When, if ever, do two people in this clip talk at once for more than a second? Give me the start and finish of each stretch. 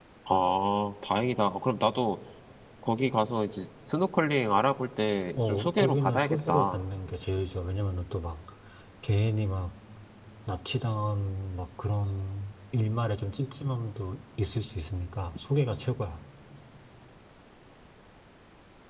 5.4-6.8

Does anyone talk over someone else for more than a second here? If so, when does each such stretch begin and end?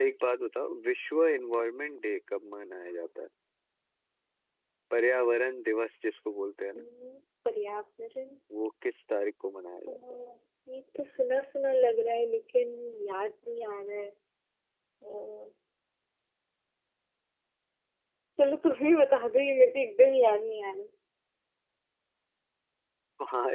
none

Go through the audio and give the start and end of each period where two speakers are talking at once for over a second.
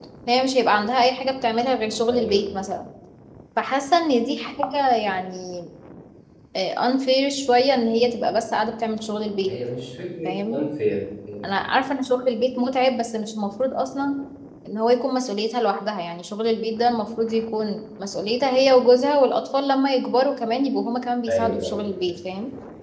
none

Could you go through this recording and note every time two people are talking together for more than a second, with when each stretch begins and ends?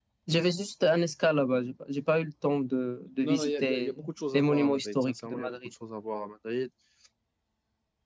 3.2-5.7

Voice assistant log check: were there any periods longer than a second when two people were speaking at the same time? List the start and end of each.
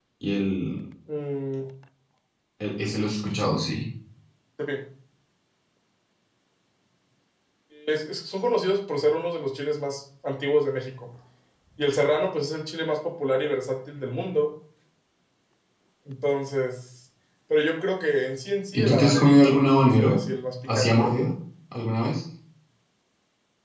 18.7-20.2

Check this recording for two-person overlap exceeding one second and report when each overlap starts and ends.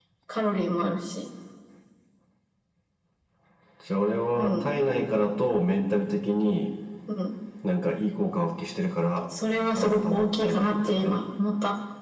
9.8-11.2

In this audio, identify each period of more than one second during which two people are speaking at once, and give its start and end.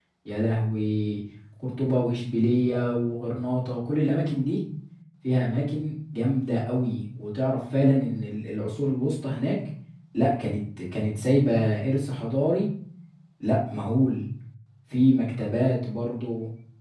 none

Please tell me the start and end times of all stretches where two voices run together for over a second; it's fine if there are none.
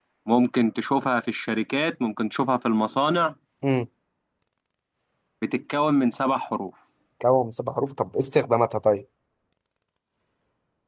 none

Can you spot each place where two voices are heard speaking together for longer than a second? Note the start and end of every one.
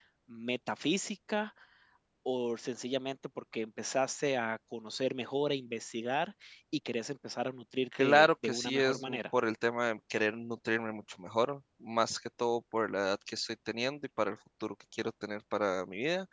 8.0-9.2

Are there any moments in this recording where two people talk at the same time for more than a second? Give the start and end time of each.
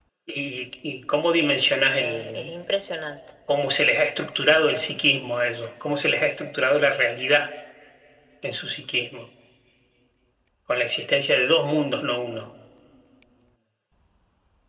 1.3-2.5

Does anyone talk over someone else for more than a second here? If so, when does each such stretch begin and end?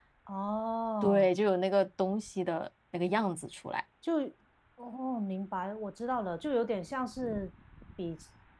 none

